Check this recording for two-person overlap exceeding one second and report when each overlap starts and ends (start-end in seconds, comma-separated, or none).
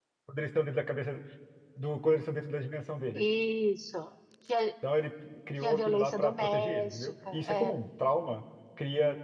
5.6-7.8